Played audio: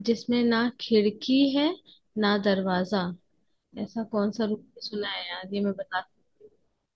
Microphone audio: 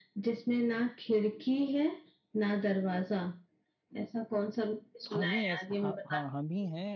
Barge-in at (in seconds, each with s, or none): 5.0 s